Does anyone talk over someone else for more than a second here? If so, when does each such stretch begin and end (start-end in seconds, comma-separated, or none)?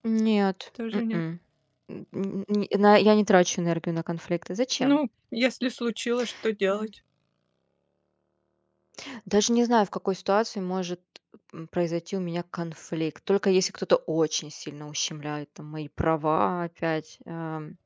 none